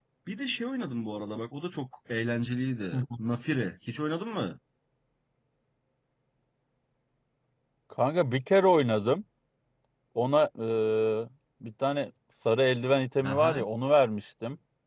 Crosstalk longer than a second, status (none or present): none